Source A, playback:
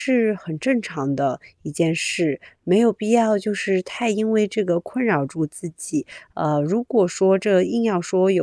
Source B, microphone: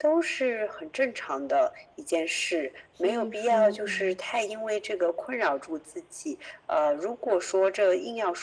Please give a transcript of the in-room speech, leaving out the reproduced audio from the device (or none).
所以说我